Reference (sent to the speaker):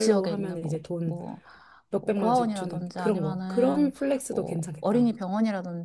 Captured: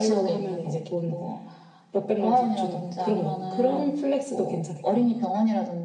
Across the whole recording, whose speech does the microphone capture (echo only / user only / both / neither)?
echo only